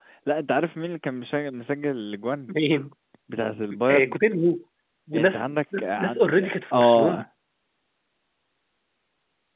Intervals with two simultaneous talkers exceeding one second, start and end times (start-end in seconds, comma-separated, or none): 6.0-7.2